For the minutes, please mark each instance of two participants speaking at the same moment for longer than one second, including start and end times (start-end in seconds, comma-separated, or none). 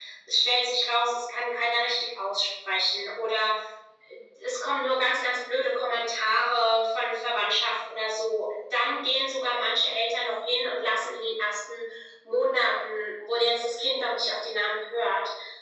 none